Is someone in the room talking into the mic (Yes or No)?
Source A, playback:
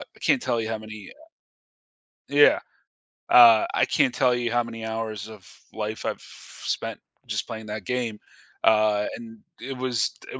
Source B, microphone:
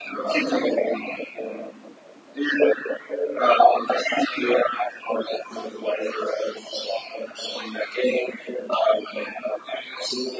No